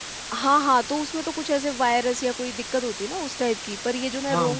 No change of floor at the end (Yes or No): Yes